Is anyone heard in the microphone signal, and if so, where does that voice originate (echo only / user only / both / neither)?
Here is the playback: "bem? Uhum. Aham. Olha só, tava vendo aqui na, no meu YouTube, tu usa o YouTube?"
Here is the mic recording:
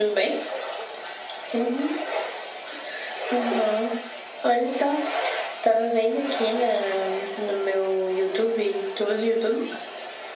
echo only